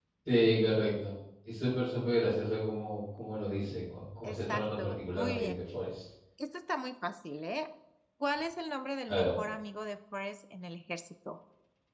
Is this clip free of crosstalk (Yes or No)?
No